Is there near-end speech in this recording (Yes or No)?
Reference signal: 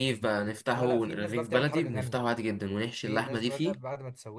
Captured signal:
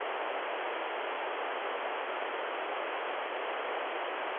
No